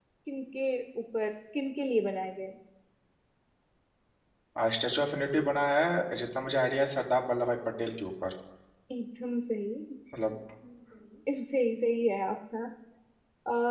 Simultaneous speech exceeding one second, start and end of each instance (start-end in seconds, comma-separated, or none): none